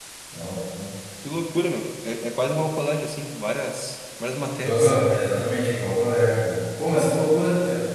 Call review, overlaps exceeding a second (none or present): none